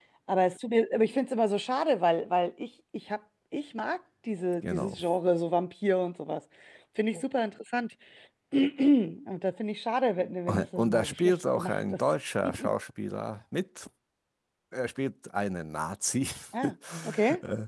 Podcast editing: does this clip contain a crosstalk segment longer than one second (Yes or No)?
Yes